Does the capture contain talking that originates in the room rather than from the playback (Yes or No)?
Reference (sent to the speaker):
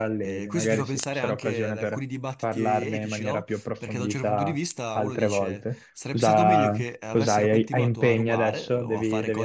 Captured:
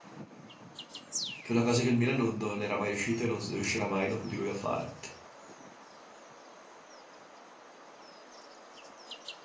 Yes